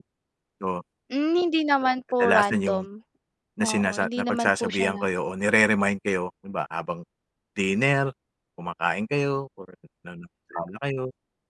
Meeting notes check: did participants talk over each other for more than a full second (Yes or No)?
Yes